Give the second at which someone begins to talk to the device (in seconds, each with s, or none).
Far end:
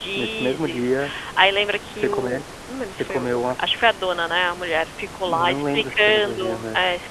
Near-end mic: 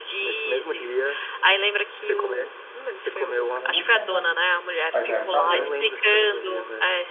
3.5 s